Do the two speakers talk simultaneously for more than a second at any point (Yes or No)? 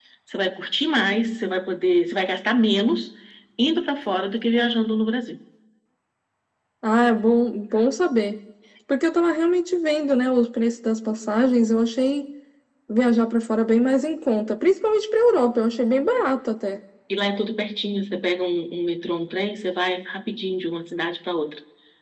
No